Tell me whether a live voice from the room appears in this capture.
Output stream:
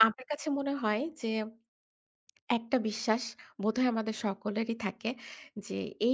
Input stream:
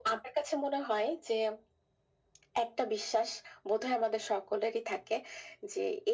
No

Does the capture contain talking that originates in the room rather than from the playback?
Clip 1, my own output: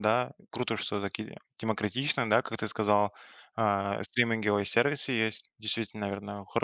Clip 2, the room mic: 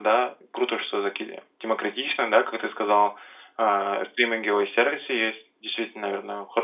No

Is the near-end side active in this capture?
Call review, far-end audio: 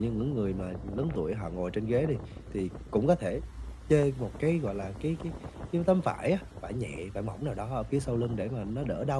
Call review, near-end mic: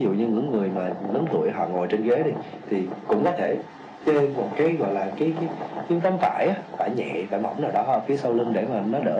No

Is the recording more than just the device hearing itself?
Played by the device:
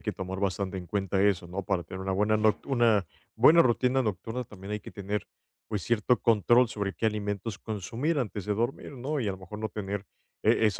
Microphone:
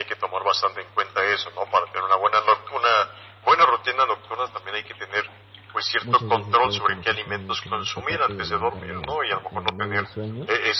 Yes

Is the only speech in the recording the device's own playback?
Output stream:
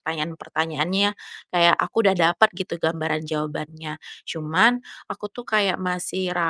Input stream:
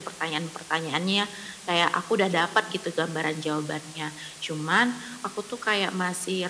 Yes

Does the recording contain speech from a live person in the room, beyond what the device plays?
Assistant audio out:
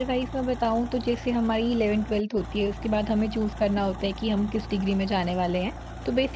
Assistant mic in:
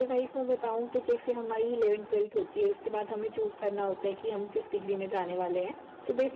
No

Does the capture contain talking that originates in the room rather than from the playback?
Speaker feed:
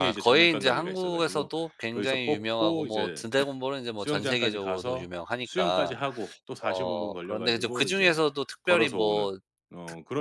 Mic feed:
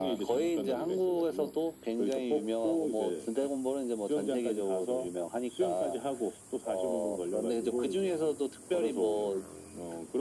No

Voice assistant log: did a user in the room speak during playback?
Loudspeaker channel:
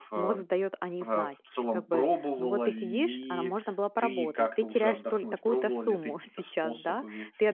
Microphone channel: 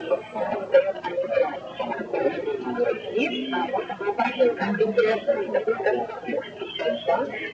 Yes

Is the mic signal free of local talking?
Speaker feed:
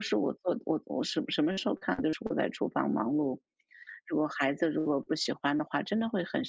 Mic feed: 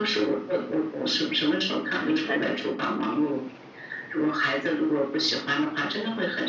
No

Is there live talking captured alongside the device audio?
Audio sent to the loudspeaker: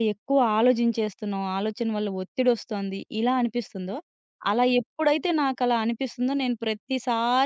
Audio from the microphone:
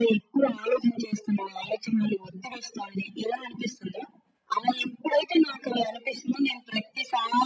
No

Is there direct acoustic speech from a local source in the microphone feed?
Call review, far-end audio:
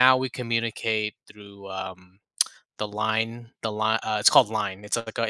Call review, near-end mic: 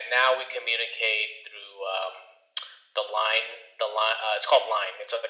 No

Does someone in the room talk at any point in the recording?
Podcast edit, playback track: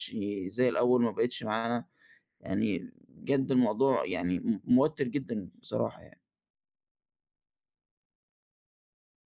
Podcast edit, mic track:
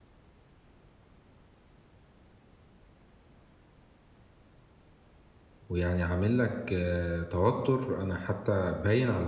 Yes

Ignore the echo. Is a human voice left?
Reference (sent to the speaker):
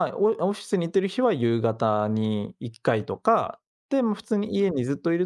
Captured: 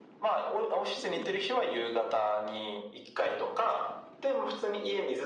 Yes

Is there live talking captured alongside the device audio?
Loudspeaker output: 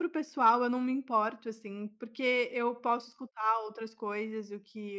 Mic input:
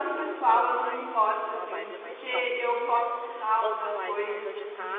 Yes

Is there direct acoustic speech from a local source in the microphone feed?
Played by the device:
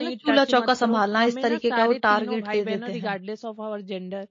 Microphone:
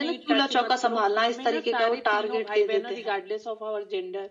No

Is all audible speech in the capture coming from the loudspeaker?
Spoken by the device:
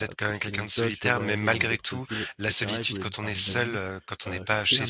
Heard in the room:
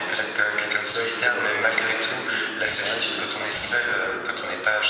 Yes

